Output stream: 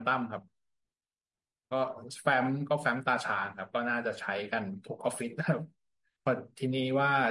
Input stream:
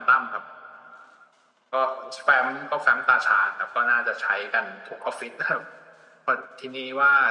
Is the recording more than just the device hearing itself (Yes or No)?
No